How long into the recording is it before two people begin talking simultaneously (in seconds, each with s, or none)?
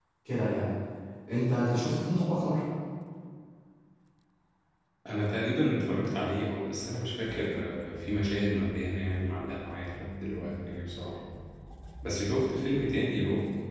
none